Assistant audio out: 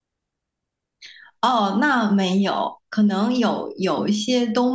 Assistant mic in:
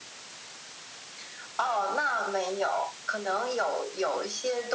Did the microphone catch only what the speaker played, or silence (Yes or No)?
Yes